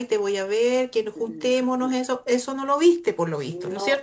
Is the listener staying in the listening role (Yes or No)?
No